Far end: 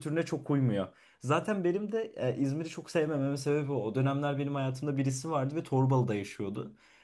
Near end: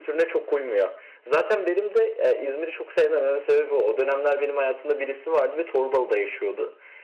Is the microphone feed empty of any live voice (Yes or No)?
Yes